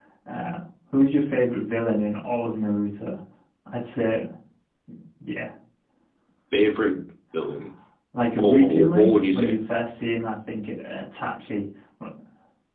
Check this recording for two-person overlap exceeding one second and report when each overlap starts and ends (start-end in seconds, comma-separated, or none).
8.3-9.6